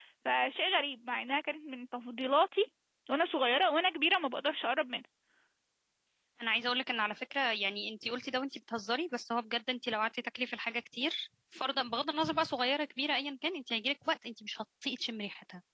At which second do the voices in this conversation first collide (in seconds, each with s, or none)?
none